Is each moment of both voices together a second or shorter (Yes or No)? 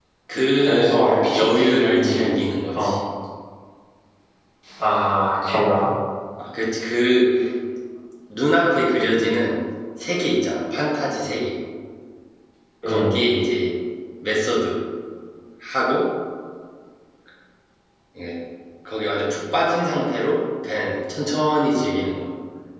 No